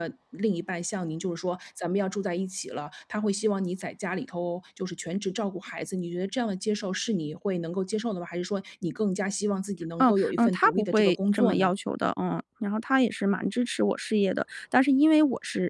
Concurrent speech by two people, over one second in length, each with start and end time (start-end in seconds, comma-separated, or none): 10.0-11.7